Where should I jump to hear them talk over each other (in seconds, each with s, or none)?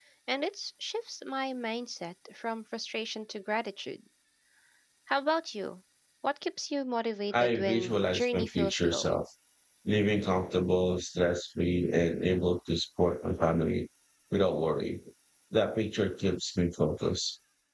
7.3 s